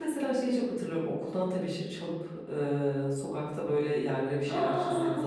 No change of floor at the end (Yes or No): No